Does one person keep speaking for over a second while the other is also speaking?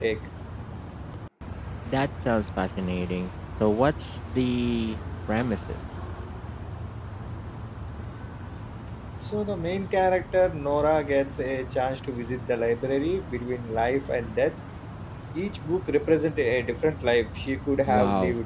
No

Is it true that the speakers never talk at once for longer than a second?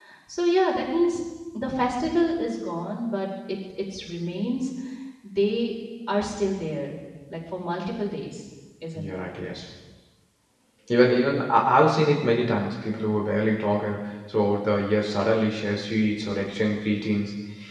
Yes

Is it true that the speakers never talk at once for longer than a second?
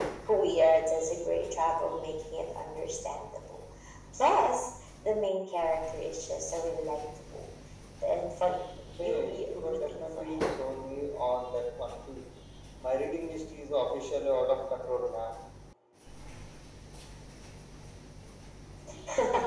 No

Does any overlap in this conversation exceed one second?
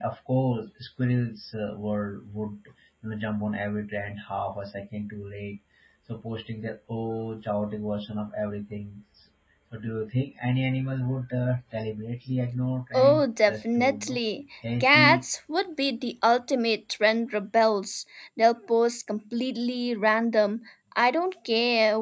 Yes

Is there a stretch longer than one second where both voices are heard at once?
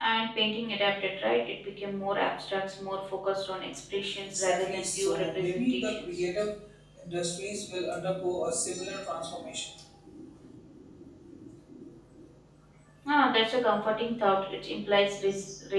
Yes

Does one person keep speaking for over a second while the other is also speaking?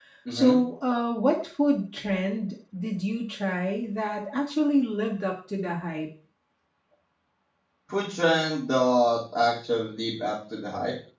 No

